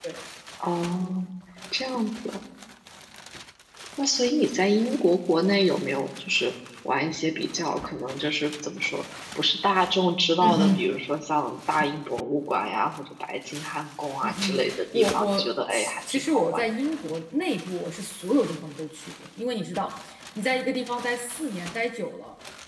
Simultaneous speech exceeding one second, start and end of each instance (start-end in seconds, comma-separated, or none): 14.2-16.6